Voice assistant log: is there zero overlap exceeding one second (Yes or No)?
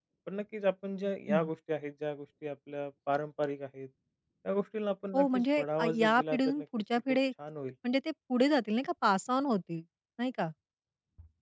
No